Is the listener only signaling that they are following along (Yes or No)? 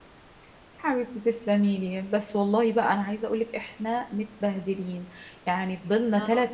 Yes